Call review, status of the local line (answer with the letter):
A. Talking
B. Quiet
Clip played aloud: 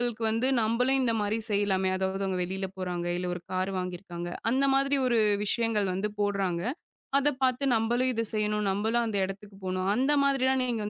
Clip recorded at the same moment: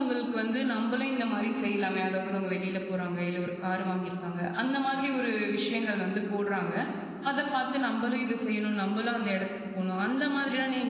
B